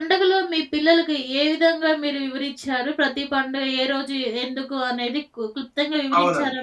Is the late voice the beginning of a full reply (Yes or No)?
Yes